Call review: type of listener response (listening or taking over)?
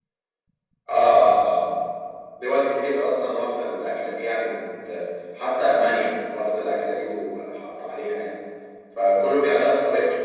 listening